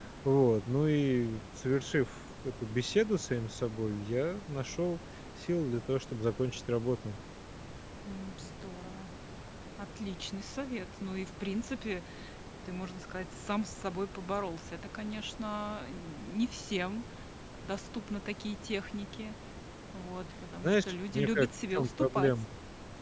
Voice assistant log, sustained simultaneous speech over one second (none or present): present